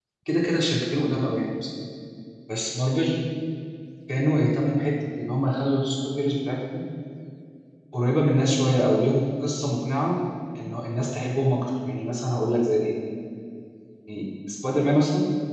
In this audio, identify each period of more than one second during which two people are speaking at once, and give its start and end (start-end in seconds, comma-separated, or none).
none